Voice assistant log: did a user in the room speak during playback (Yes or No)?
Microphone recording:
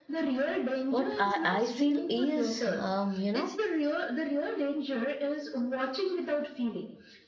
Yes